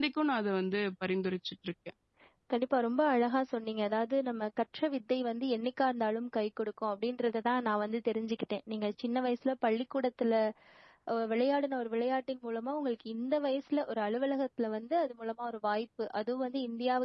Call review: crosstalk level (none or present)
none